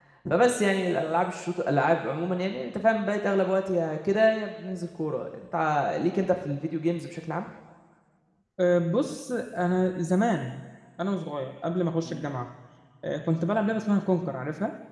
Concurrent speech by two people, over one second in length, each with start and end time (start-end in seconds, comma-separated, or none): none